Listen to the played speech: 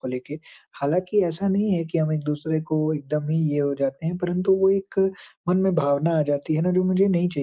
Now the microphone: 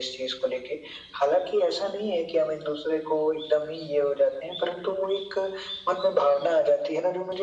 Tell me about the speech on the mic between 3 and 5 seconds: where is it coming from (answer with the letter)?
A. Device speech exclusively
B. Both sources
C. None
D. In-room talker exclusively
A